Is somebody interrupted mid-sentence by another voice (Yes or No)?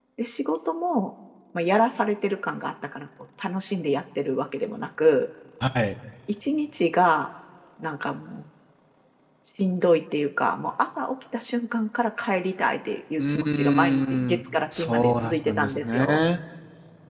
Yes